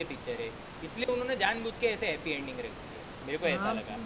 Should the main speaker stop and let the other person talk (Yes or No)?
Yes